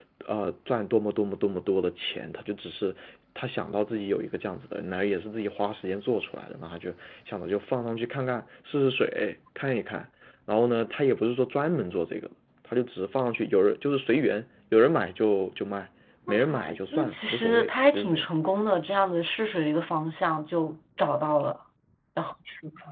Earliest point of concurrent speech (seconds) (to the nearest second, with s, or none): 16 s